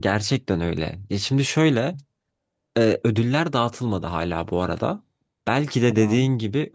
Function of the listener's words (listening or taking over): listening